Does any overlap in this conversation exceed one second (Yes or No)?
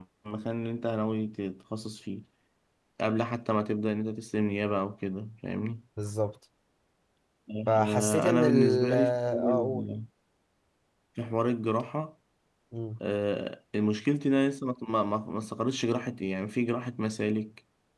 Yes